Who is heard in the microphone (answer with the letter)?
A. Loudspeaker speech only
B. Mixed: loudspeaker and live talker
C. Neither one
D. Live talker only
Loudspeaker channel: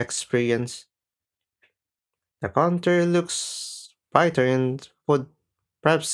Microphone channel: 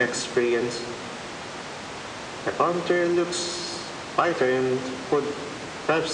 A